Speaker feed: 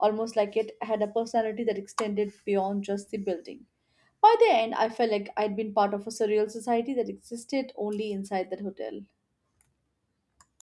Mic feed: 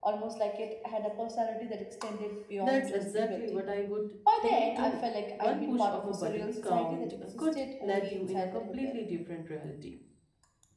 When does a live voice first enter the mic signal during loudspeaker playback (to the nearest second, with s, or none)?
3 s